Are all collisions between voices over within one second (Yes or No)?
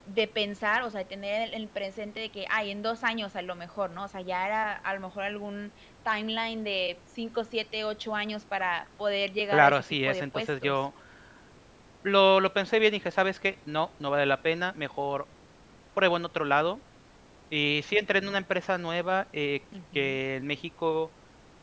No